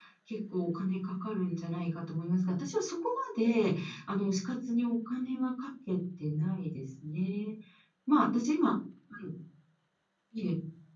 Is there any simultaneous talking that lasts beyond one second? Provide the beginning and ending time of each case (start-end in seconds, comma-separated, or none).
none